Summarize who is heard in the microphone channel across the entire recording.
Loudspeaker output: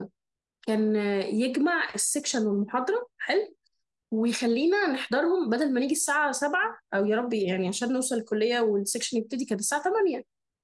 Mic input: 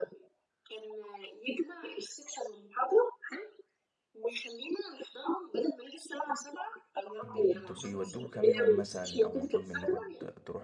both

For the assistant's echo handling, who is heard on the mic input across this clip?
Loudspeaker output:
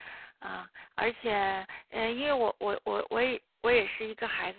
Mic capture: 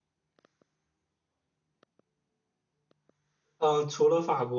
user only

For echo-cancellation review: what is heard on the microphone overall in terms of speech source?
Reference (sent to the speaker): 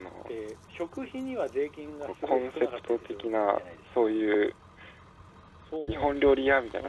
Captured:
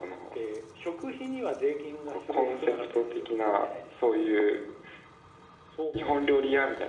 echo only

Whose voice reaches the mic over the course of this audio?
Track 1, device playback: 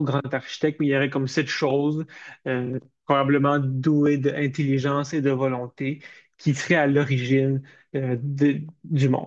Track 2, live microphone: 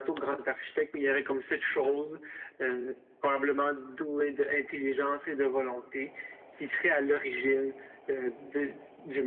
echo only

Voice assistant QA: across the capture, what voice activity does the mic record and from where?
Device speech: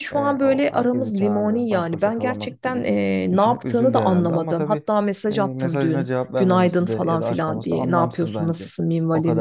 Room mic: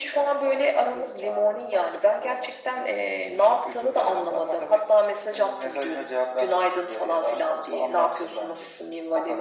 echo only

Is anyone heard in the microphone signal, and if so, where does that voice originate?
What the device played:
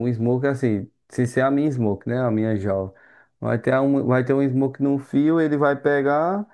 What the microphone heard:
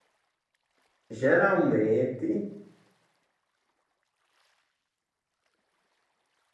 user only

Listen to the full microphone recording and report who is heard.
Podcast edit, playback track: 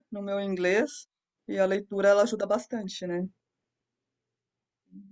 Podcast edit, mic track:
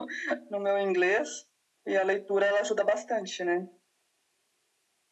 echo only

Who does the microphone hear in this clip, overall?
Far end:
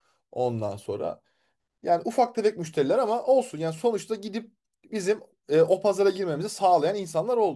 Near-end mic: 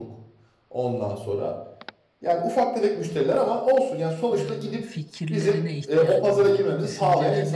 both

